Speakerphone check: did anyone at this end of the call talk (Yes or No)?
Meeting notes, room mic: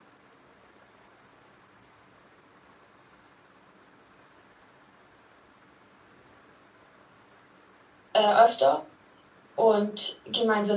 Yes